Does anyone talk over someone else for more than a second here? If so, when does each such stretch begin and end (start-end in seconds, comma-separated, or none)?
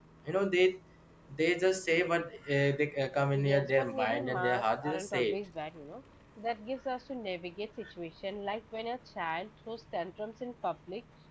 3.3-5.4